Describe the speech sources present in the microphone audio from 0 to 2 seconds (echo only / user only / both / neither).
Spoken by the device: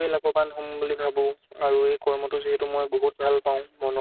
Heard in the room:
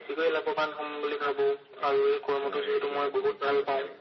echo only